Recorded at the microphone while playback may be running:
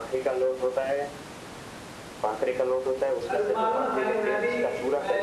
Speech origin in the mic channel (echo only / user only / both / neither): both